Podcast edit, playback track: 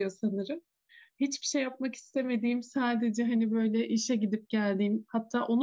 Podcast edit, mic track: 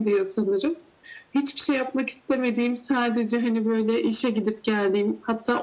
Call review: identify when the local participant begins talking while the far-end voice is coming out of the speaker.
none

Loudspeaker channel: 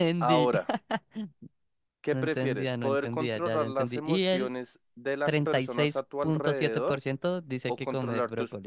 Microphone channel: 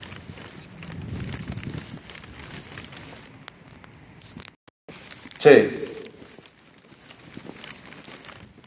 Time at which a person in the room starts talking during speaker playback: 5.4 s

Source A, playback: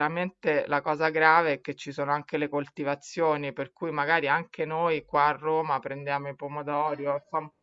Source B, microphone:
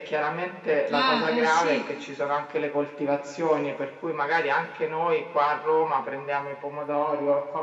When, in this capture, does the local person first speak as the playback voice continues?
0.9 s

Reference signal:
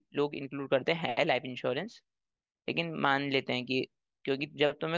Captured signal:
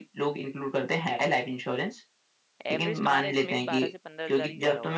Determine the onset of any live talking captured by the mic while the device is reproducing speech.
2.6 s

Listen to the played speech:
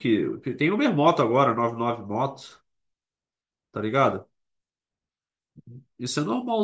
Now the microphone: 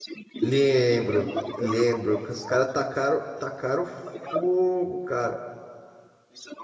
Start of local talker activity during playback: 0.4 s

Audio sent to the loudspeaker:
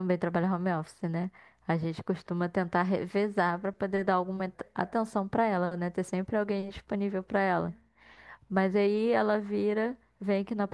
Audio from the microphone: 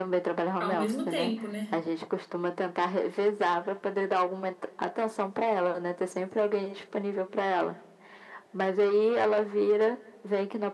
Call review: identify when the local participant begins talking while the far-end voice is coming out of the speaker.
0.6 s

